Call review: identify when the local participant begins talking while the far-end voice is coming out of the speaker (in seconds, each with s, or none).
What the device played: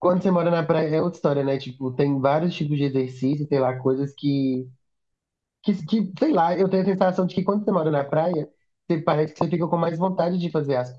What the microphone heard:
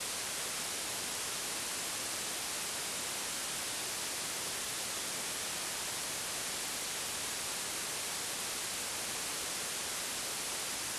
none